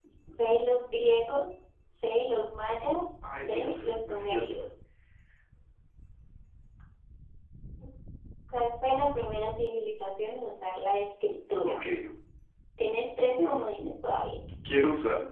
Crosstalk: present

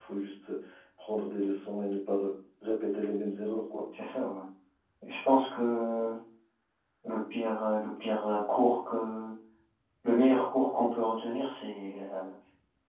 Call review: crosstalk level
none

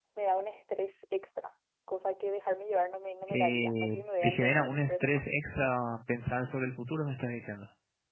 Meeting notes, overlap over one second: present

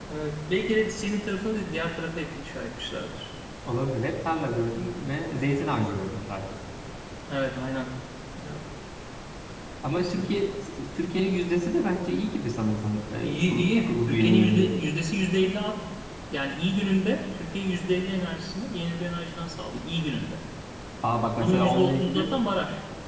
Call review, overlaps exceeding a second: present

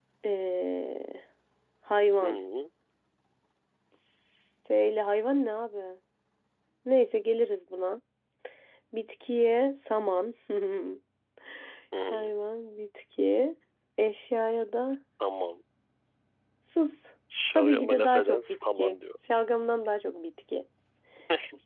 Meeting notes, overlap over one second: present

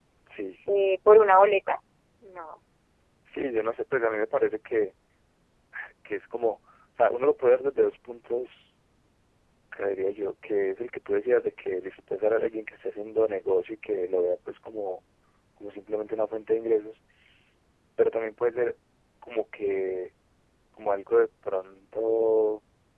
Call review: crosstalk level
none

